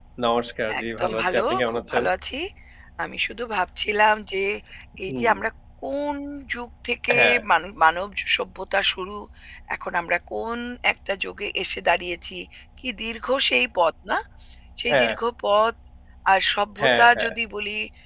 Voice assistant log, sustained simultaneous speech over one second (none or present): present